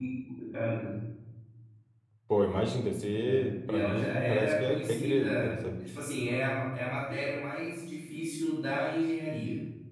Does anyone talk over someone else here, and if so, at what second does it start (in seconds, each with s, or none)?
3.2 s